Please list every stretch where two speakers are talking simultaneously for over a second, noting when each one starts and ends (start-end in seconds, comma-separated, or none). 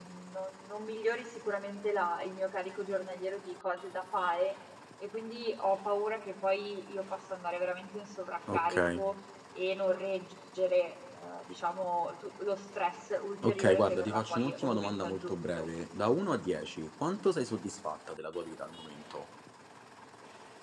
13.4-15.6